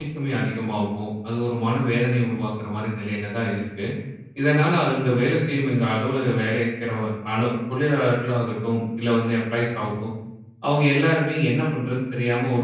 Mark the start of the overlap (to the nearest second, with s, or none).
none